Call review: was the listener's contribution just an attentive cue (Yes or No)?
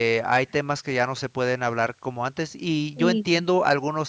Yes